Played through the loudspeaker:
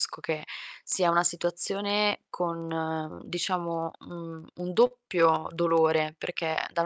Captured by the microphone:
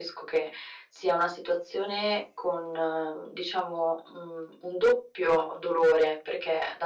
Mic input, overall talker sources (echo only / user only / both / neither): echo only